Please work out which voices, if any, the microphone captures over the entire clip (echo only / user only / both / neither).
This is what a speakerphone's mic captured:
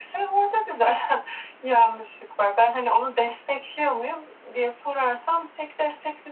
echo only